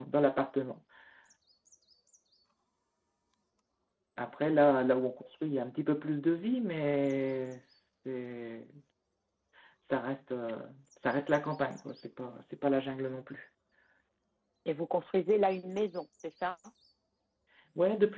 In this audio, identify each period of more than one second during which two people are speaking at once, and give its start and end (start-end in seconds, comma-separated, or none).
none